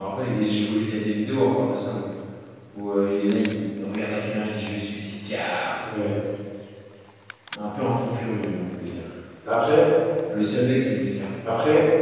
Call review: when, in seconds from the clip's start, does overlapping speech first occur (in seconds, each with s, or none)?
none